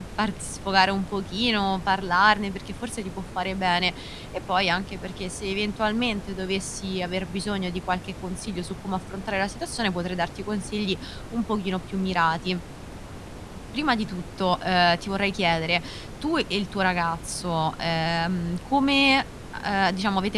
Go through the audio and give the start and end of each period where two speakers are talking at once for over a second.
none

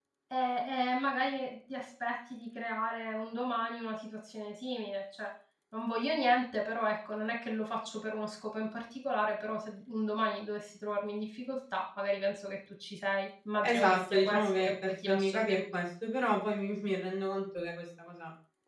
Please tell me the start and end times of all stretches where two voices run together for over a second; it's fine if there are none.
13.6-15.7

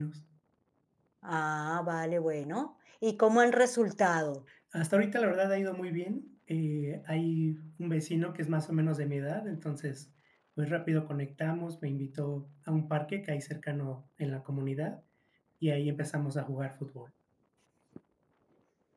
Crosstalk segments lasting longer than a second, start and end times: none

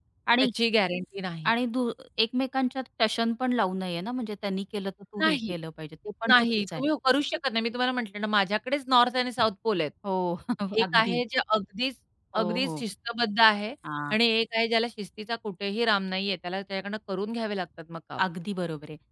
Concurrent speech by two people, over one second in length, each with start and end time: none

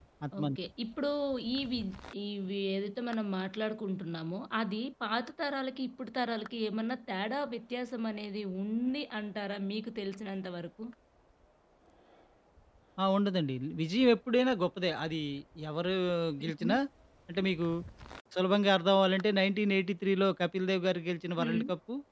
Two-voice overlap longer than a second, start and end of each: none

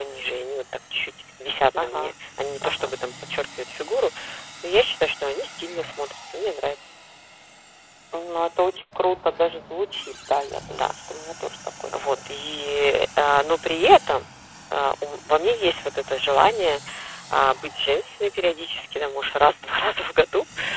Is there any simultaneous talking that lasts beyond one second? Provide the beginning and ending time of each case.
none

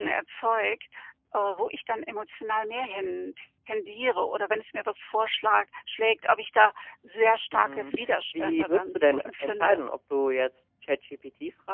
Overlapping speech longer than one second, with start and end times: 8.3-9.8

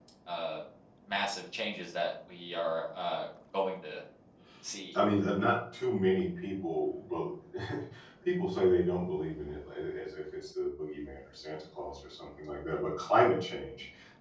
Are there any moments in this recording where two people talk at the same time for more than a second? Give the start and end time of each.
none

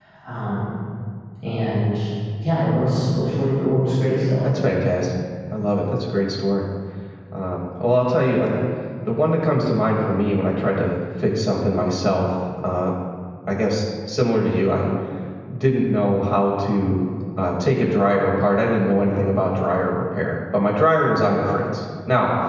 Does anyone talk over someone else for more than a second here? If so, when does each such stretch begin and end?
none

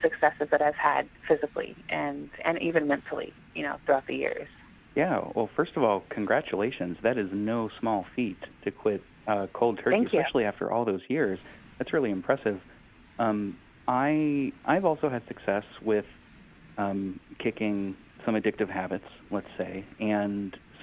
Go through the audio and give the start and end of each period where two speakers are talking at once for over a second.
none

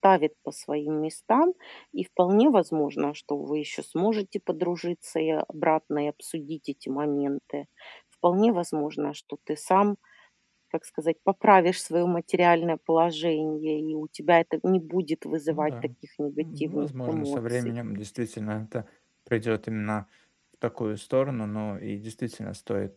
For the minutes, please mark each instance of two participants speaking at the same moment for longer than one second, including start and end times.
16.4-17.7

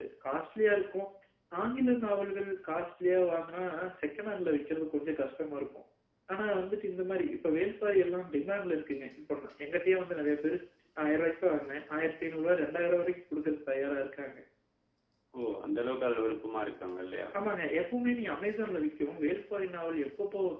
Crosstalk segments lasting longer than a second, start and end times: none

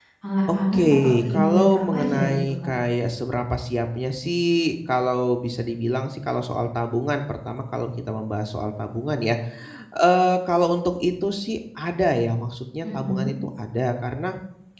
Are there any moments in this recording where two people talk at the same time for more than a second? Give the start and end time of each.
0.7-2.7

